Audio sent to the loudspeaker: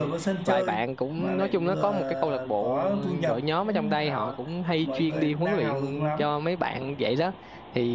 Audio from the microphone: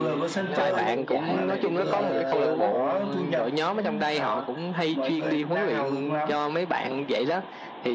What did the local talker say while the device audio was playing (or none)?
hàng năm họ vẫn giải tổ chức cái giải chạy trail á